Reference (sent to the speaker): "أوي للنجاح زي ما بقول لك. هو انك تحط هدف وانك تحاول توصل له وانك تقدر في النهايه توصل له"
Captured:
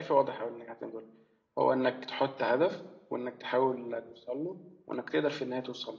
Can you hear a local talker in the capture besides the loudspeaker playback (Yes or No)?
No